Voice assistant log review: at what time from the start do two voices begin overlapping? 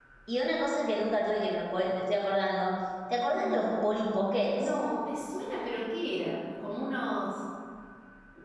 3 s

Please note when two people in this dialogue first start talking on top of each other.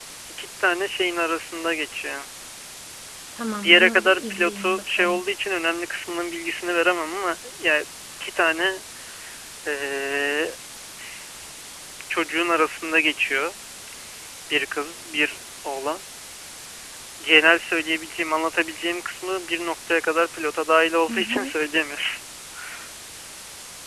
4 s

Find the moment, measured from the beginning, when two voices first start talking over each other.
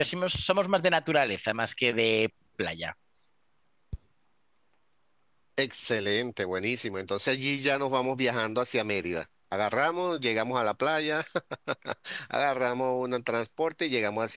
none

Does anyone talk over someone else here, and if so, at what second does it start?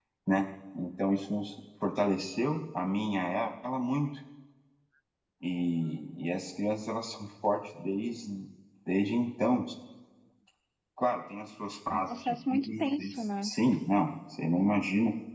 12 s

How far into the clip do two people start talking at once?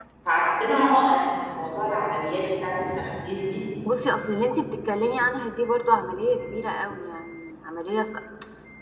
none

